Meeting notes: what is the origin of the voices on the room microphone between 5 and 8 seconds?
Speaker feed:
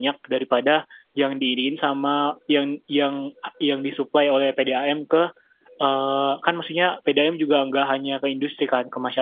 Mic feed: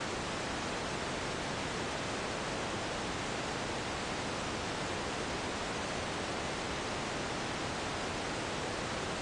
neither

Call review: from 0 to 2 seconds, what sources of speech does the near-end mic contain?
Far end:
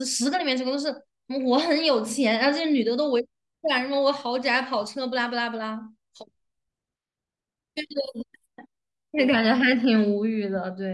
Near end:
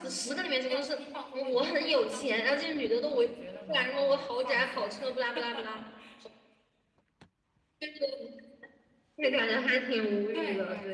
both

